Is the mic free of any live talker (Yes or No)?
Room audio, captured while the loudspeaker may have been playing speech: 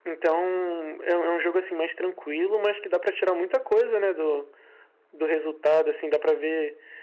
Yes